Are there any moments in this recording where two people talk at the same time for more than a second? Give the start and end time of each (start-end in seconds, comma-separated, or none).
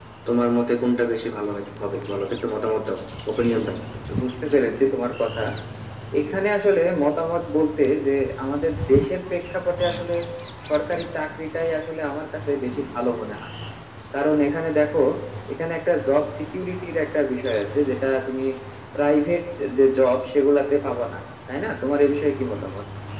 none